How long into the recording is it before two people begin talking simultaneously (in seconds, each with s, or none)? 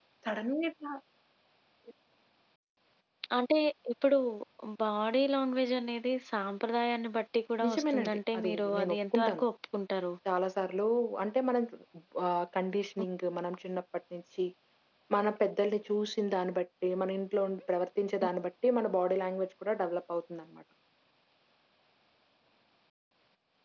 7.6 s